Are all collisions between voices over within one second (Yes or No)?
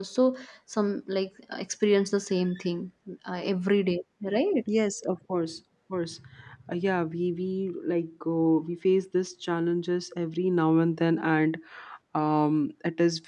Yes